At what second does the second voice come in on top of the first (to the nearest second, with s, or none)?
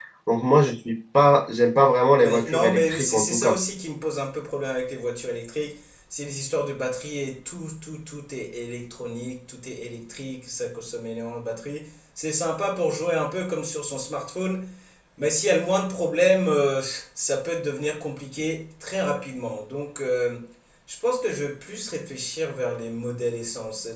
2 s